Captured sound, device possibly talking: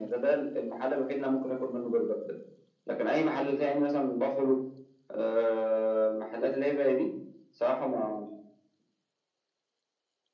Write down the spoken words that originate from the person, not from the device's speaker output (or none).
none